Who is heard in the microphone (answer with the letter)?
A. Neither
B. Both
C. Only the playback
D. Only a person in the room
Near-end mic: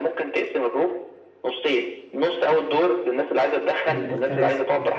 B